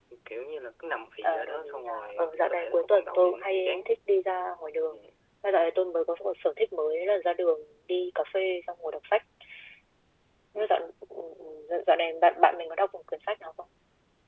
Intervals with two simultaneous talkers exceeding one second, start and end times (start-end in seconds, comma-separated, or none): 1.2-3.9